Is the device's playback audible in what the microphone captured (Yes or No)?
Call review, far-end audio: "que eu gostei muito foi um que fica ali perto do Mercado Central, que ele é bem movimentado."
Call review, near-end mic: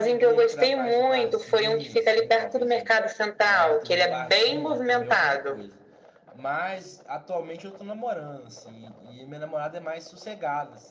Yes